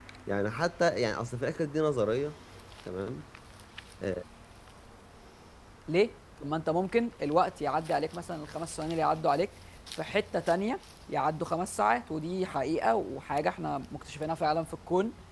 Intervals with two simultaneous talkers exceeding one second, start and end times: none

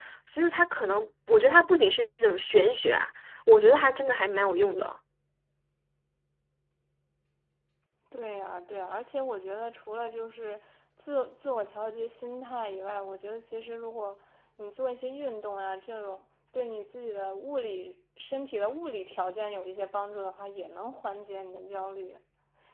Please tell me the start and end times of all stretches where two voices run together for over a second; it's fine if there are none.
none

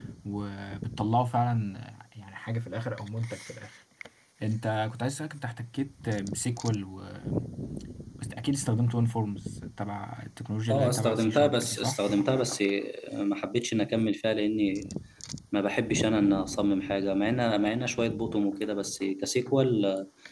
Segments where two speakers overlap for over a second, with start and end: 10.7-12.0

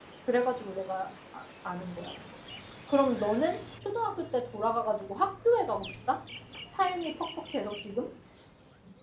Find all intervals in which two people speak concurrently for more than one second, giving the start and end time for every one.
none

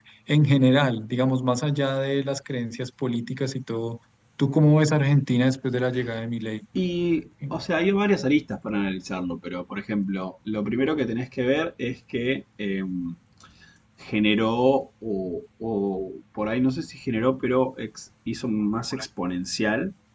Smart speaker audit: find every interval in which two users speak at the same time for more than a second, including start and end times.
none

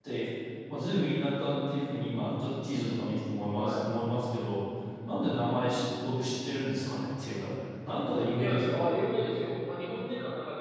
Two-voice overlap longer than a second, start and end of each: none

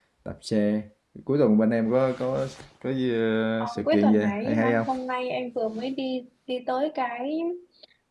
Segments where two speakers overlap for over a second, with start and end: 3.6-4.9

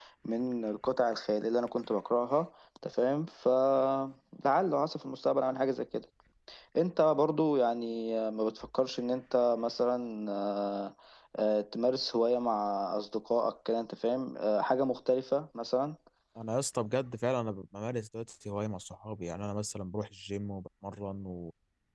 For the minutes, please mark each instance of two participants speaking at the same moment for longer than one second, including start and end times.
none

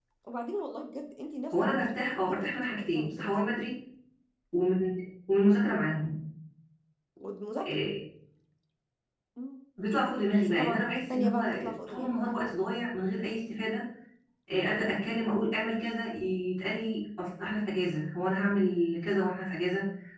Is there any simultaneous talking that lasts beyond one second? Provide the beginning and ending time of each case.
1.5-3.3, 10.4-12.2

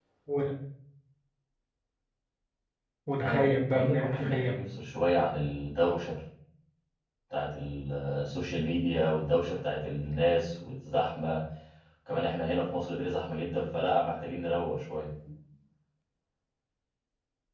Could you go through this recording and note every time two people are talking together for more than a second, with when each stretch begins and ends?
3.2-4.6

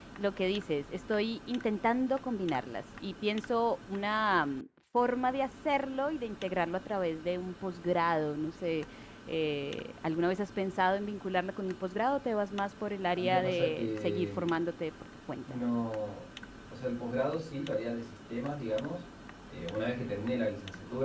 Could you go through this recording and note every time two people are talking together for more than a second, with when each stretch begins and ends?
13.1-14.5

